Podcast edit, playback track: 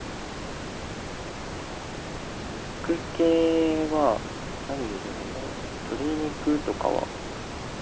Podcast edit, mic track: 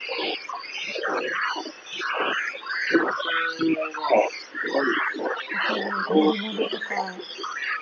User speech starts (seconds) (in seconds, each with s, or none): 5.5 s